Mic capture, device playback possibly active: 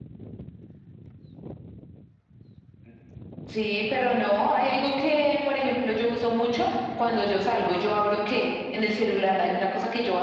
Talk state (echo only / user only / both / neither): echo only